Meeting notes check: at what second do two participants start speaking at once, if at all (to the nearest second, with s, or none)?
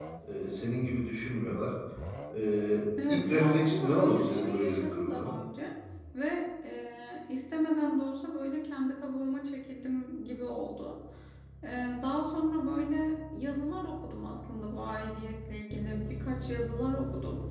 3 s